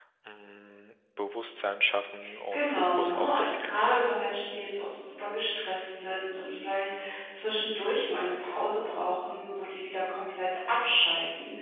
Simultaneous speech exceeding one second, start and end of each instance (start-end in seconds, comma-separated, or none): 2.5-4.0